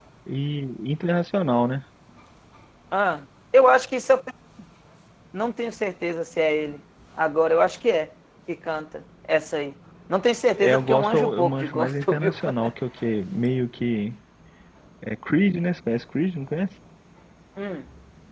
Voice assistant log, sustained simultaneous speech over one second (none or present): present